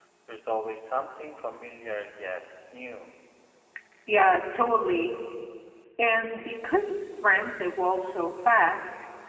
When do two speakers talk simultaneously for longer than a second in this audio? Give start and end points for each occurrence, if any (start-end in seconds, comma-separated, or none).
none